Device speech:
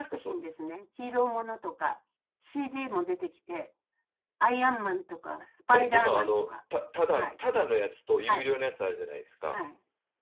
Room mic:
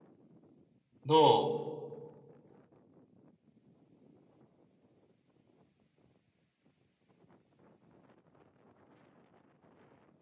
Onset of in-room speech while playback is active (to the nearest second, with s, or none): 1 s